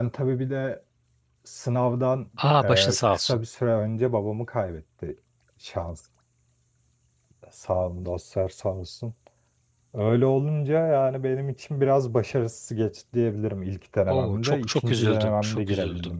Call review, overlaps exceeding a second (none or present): present